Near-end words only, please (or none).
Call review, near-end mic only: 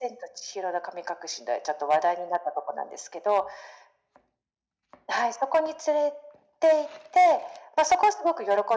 none